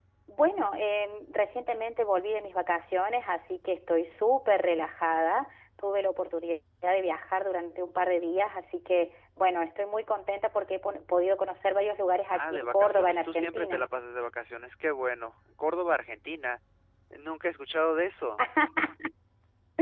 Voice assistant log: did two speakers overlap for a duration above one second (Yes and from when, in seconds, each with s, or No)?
Yes, from 12.3 s